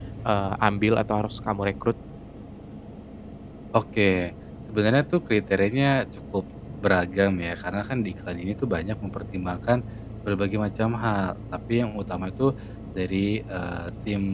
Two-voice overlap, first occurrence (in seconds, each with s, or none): none